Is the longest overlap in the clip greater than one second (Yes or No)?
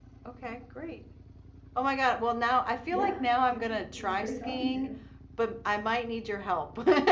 Yes